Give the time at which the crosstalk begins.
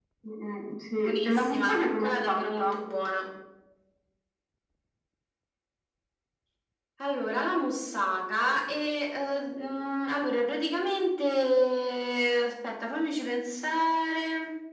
1.1 s

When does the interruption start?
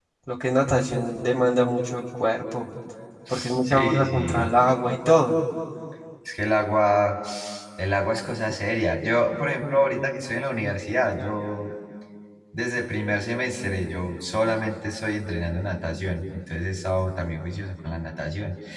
3.3 s

